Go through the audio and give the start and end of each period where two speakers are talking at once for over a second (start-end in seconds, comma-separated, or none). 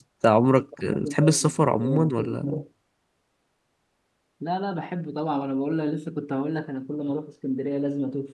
0.8-2.5